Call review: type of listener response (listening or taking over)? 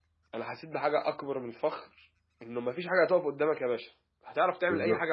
listening